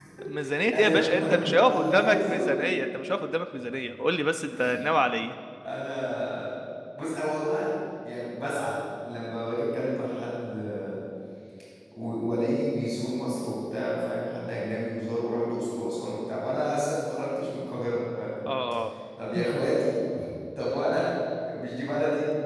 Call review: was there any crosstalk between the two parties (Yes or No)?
Yes